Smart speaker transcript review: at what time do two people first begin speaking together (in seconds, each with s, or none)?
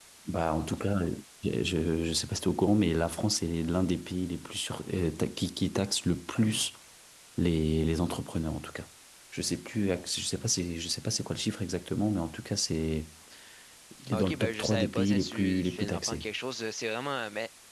14.1 s